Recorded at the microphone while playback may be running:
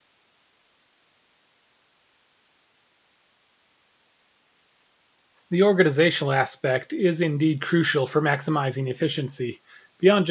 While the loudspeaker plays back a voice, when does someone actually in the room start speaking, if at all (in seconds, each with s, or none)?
5.5 s